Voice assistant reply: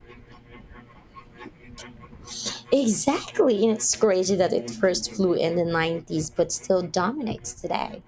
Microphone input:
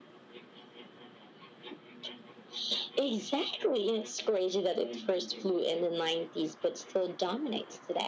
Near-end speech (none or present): none